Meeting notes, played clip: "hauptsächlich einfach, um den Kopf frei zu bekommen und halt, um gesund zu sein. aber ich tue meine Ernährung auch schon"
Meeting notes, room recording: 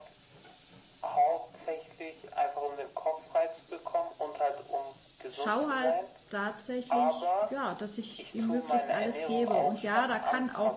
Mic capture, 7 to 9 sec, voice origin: both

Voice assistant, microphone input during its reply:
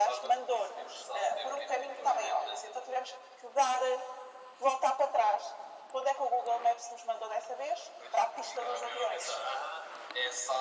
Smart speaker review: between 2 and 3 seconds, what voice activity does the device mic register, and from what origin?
echo only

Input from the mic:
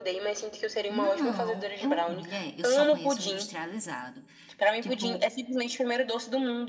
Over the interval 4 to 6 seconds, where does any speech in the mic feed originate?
both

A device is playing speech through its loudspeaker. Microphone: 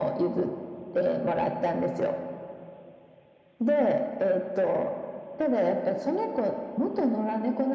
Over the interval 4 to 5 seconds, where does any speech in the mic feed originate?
echo only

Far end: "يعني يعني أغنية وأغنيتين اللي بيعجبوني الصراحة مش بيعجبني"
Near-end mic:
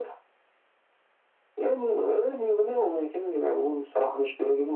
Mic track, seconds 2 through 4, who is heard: echo only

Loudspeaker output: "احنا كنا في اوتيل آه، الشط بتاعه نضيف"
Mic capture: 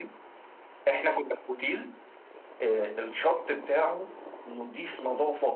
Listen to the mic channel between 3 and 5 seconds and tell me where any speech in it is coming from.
echo only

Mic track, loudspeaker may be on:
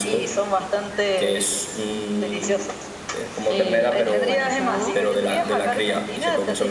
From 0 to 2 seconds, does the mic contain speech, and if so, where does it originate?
echo only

